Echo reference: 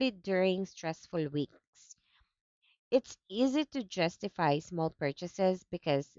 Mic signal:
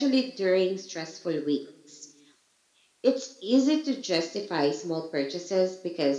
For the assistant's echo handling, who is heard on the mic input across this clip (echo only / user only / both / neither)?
echo only